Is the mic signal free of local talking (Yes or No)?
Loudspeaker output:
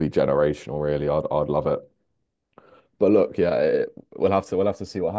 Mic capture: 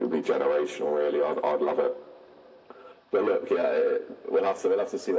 Yes